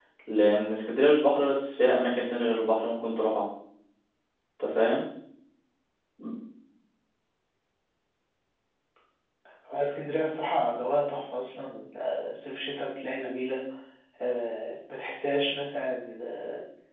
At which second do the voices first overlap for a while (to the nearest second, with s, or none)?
none